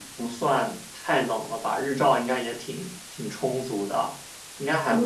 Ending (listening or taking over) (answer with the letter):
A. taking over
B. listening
A